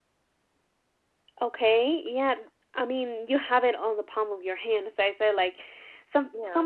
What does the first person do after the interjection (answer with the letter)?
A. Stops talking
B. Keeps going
B